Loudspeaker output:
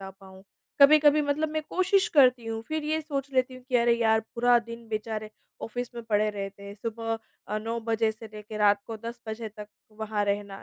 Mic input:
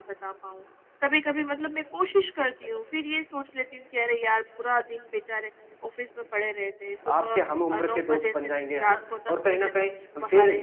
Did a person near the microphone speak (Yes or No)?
Yes